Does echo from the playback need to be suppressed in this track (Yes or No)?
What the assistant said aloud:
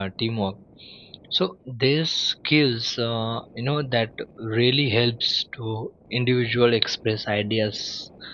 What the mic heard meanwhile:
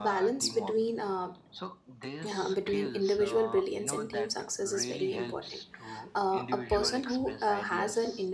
Yes